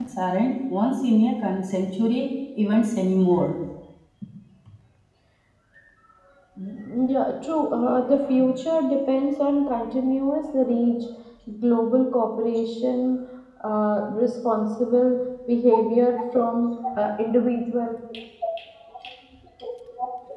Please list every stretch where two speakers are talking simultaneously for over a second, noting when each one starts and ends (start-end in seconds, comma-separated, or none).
none